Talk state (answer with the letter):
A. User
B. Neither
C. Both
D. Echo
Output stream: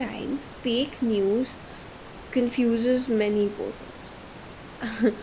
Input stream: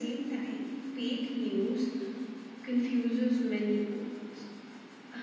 D